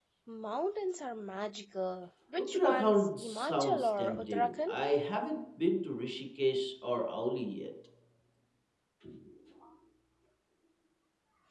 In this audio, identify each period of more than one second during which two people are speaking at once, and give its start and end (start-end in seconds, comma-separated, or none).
2.4-4.7